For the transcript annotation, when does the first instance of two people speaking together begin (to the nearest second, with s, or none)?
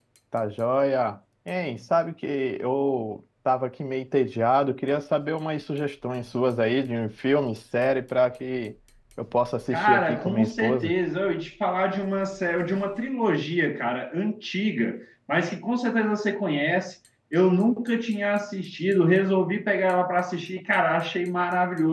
10 s